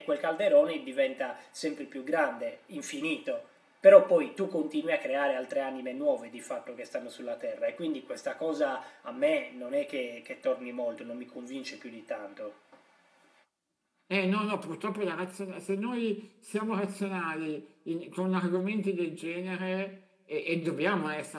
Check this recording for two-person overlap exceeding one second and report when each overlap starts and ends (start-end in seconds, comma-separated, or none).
none